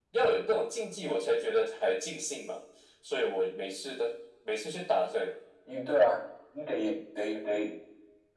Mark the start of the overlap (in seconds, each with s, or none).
none